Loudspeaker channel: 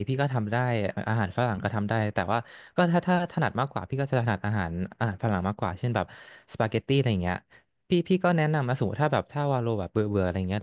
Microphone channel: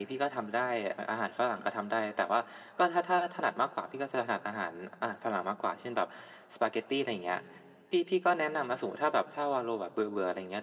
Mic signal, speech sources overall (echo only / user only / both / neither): echo only